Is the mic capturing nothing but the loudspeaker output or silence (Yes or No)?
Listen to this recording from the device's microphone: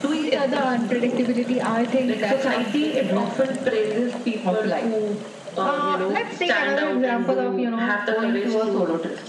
Yes